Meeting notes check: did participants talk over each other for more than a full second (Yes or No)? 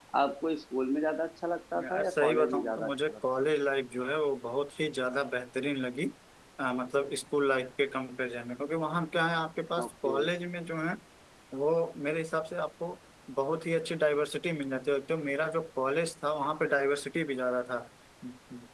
Yes